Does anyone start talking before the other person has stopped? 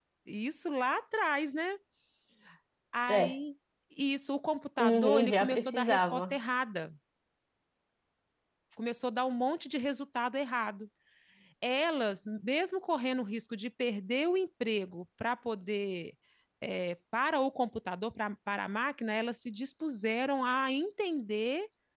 Yes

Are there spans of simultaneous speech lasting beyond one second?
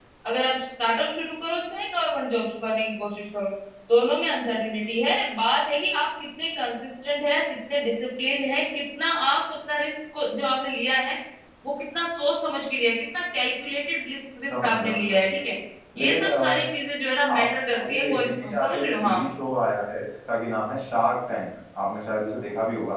Yes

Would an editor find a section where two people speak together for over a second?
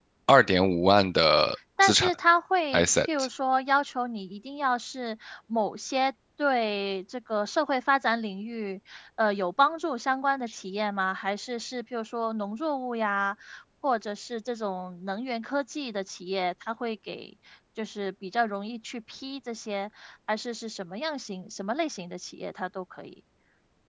No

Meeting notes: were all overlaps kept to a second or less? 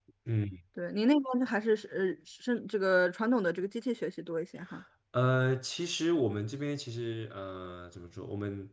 Yes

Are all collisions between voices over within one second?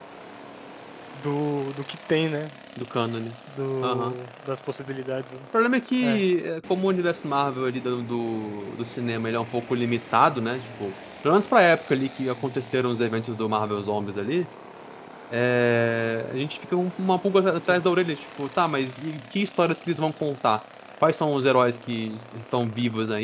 Yes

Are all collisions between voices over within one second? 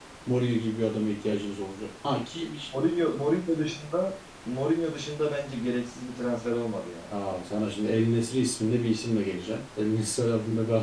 Yes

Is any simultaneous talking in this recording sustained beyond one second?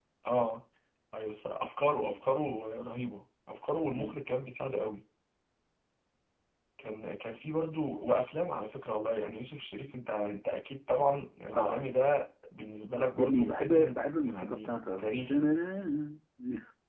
Yes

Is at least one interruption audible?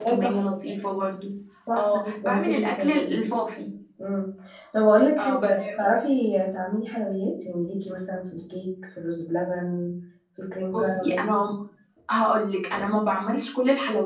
Yes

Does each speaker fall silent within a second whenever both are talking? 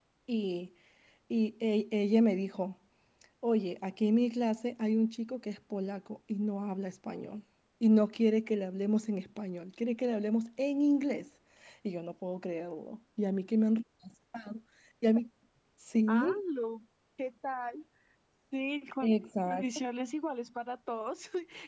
Yes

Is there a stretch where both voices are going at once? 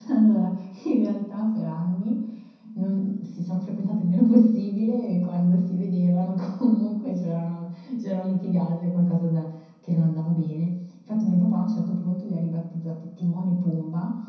No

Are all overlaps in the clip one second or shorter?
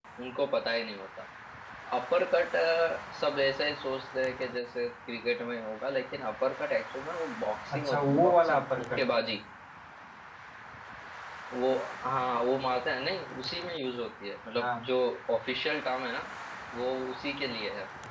No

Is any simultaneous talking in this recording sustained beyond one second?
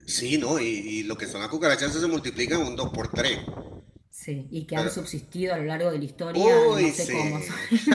Yes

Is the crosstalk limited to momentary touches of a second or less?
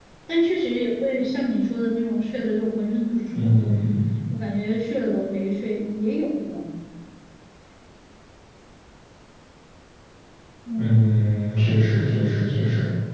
Yes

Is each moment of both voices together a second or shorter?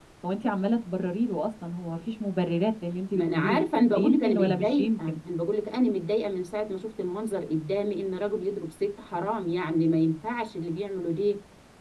No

